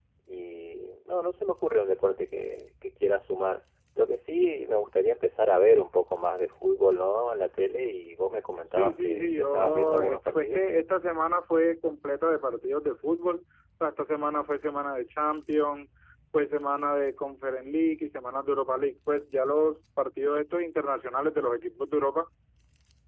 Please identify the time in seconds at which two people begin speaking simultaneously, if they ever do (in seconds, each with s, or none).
8.7 s